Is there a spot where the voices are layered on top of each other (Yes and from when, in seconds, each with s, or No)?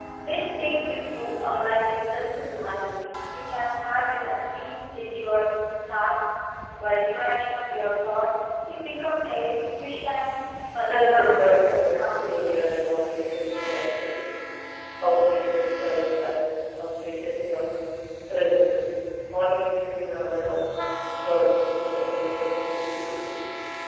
Yes, from 10.9 s